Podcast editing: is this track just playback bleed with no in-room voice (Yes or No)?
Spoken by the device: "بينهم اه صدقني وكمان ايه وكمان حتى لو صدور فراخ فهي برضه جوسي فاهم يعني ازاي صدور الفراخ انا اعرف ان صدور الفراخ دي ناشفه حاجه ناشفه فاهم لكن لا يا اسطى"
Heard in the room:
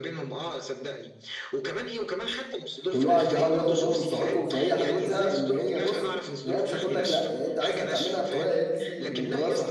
No